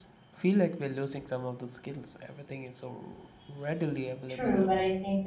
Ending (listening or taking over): taking over